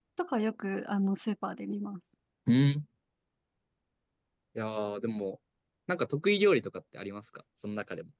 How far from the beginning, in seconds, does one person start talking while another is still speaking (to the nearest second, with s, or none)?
none